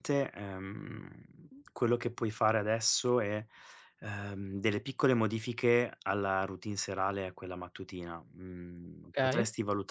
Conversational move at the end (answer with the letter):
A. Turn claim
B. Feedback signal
B